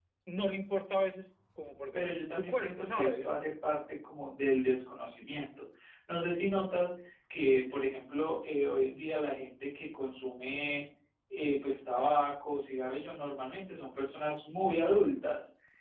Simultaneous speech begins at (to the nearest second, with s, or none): 2 s